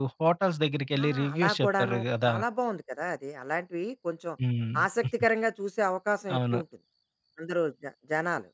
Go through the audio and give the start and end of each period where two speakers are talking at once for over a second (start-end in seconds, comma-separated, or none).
1.0-2.3